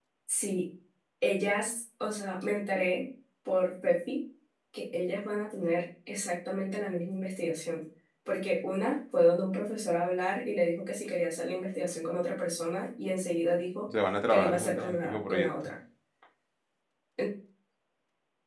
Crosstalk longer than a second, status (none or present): present